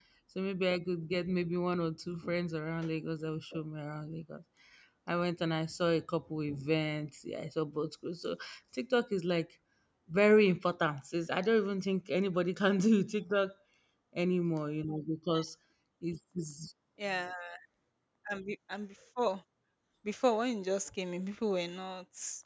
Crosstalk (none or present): none